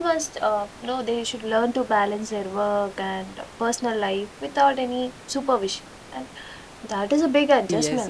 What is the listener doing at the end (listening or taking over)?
taking over